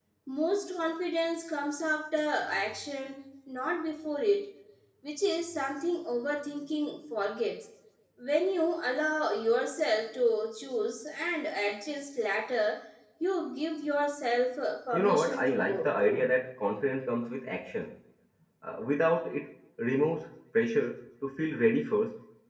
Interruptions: present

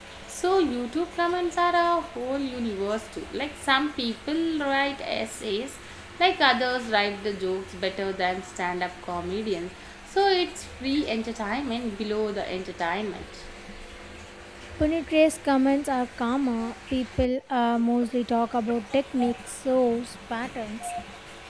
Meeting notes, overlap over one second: none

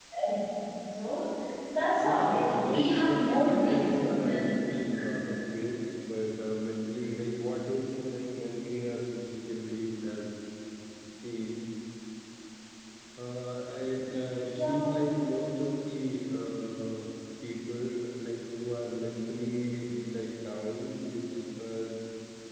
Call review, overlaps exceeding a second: present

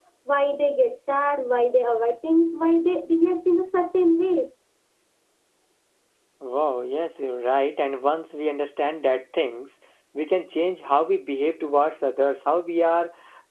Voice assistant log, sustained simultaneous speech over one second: none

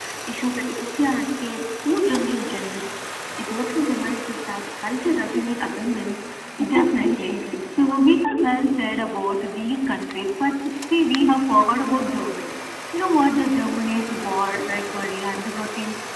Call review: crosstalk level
present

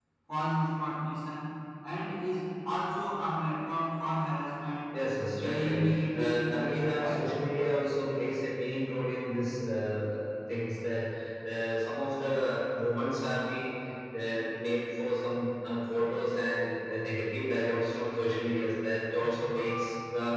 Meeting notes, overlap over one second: present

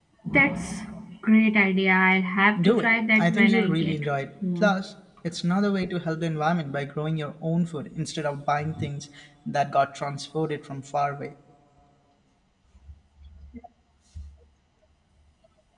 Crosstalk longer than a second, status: present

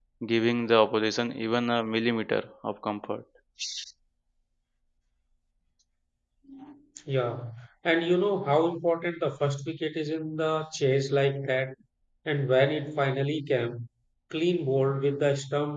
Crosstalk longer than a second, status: none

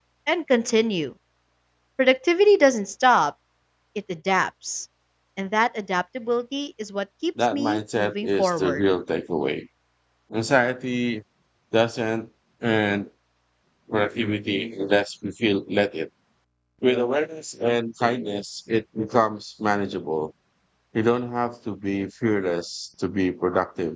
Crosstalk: present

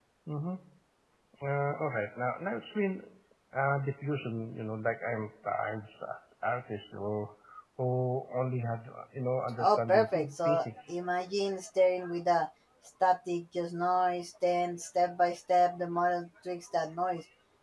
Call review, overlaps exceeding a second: present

